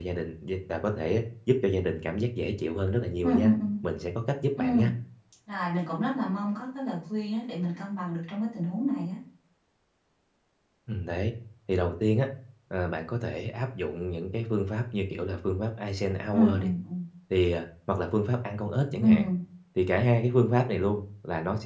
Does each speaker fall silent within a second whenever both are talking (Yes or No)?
Yes